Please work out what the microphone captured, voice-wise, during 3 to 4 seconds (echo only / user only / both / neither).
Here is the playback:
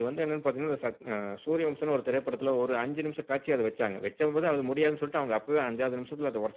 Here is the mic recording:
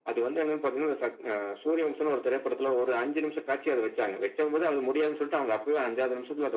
echo only